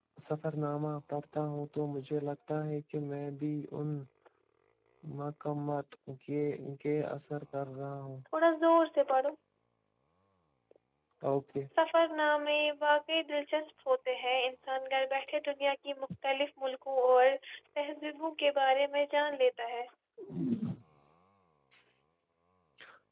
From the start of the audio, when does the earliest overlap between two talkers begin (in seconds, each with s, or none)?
none